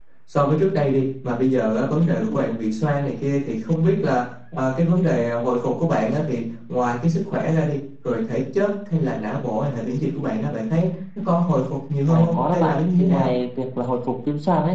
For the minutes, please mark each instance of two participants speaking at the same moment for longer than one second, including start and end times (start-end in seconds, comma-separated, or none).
12.1-13.3